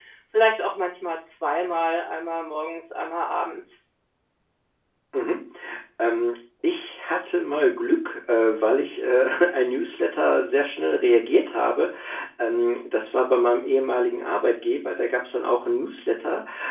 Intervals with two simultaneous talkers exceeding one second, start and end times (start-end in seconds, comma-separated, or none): none